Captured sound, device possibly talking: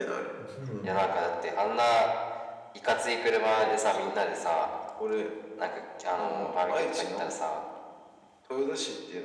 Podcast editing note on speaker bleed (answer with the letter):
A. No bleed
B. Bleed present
B